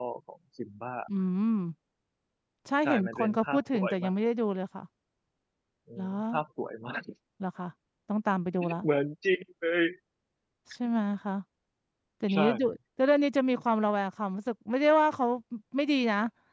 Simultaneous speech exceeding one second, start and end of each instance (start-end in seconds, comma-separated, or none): 2.8-4.1